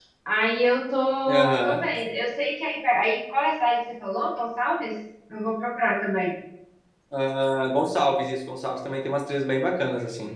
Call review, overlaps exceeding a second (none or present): none